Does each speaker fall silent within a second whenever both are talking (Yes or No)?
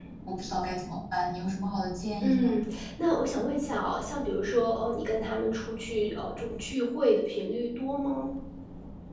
Yes